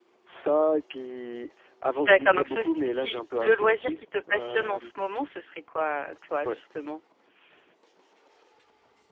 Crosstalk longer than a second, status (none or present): present